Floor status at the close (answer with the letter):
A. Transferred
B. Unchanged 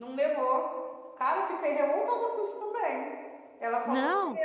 B